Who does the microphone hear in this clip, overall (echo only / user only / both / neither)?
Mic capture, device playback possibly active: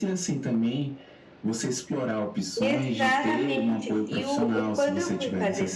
both